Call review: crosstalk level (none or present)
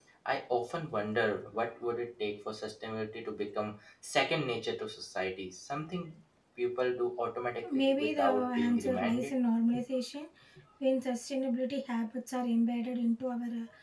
present